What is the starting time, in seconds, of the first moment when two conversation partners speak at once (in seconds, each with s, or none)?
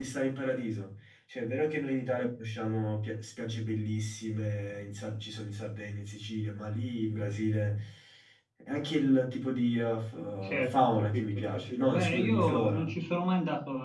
10.4 s